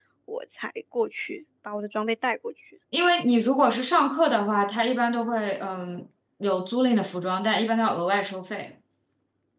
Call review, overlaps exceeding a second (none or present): none